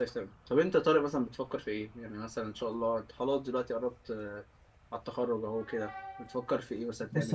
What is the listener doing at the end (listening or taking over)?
taking over